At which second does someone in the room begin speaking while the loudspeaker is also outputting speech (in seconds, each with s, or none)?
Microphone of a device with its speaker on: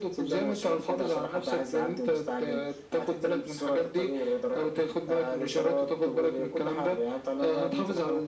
none